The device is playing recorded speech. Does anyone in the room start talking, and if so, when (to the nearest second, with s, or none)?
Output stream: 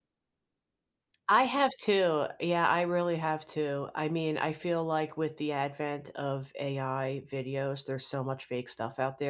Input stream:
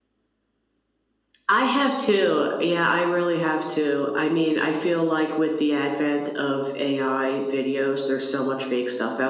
none